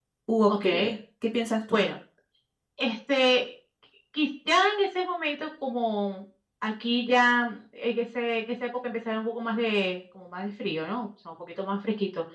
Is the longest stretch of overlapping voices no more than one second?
Yes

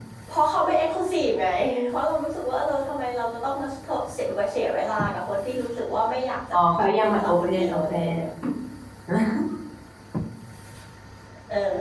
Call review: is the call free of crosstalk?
No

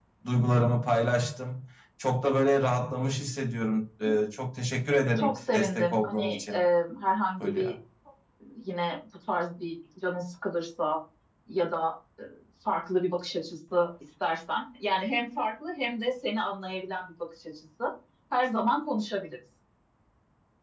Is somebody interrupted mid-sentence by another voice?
Yes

